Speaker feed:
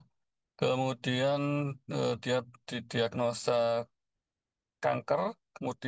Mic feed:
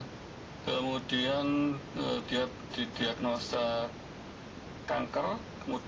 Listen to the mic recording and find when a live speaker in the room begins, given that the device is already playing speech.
none

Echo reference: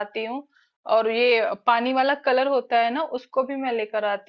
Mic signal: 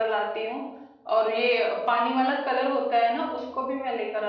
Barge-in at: none

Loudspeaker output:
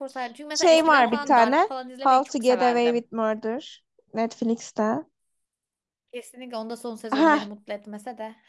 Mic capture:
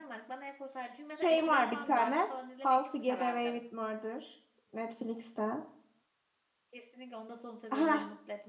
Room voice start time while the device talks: none

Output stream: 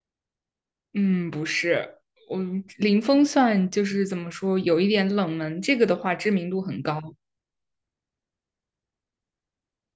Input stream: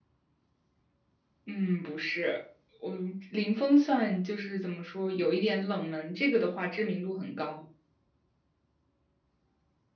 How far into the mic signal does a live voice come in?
none

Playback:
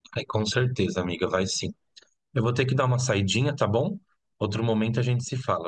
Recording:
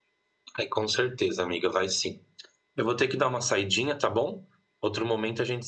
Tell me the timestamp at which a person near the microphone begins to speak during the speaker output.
none

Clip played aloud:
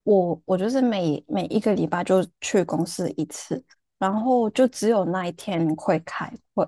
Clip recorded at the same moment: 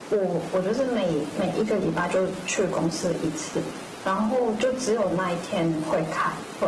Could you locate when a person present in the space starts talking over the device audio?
none

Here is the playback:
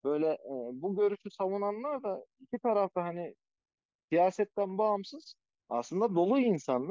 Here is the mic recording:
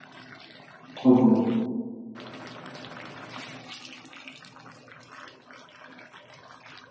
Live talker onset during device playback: 1.0 s

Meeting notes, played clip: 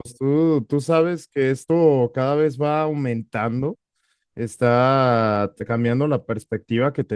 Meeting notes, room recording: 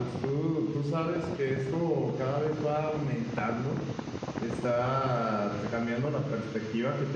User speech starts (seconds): none

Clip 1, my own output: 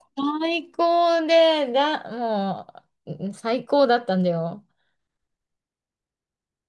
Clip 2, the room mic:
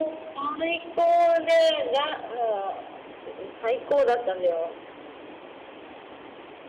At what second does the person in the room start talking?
none

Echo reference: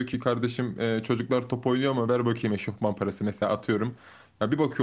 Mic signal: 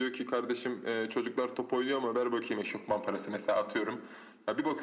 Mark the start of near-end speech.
none

